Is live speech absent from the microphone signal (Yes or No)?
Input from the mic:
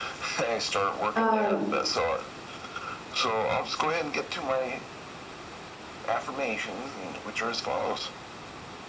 No